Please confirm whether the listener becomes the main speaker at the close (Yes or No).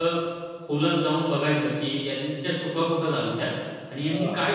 No